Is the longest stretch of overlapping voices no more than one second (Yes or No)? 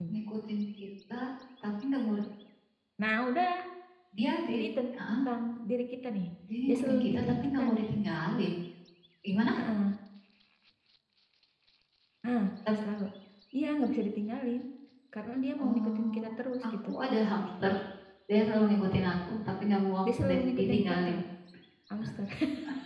No